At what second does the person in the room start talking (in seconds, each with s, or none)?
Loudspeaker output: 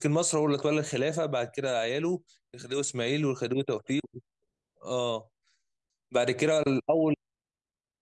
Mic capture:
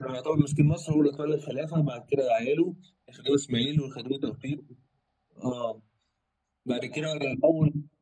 none